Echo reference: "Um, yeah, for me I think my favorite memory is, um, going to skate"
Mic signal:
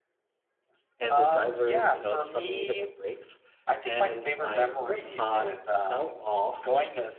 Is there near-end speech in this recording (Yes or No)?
Yes